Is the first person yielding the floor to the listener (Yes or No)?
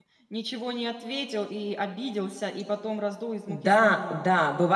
Yes